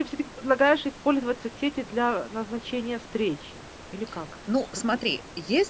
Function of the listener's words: taking over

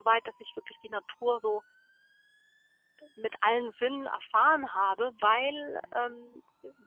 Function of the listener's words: listening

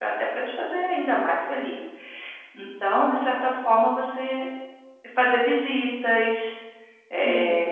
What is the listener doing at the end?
listening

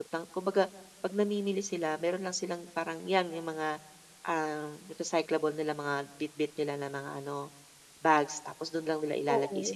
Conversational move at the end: listening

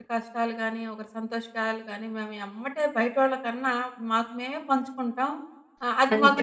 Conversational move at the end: listening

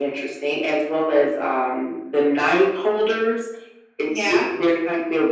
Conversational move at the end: listening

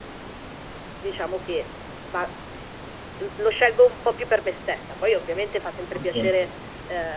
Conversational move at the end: listening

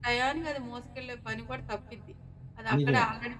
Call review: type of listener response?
listening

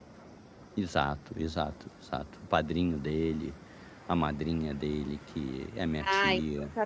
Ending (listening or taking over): taking over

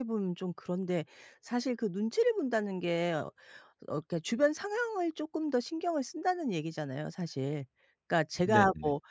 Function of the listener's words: listening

